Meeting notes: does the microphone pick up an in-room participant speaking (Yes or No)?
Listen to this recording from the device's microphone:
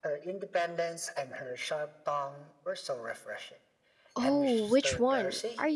Yes